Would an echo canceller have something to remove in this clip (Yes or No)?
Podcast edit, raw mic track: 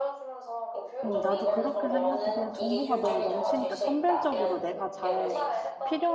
Yes